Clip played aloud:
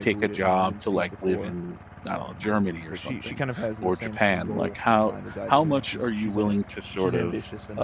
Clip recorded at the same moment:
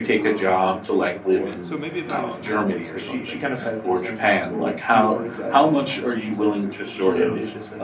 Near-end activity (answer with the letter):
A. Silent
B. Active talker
B